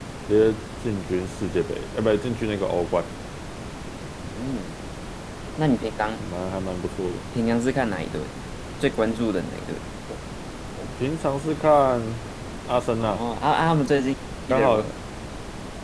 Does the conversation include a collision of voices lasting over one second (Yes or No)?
No